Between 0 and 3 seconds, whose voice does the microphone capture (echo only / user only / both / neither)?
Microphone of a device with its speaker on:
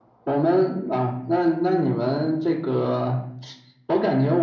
echo only